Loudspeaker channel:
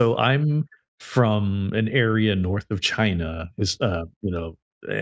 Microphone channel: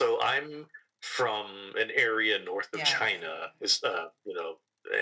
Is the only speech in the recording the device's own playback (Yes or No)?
No